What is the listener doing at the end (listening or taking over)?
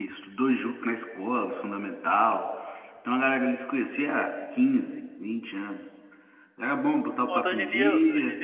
taking over